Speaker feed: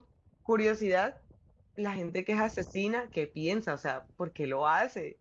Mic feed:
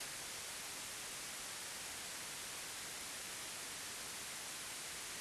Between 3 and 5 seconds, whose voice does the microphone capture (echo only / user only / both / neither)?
neither